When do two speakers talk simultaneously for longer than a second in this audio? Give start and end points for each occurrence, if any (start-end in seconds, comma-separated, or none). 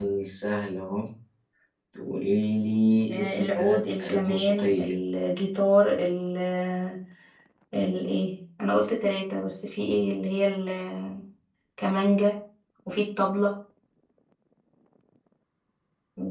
3.1-5.0